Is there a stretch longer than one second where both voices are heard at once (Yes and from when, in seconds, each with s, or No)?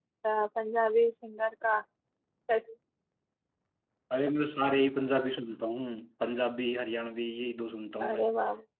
No